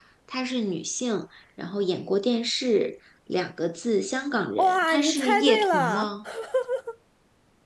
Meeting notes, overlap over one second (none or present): present